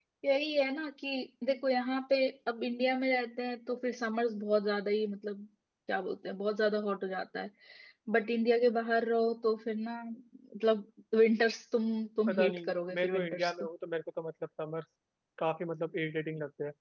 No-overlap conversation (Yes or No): No